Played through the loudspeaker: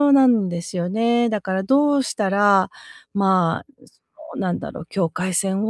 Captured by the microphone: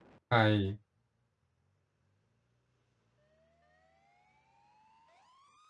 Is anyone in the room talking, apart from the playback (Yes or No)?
Yes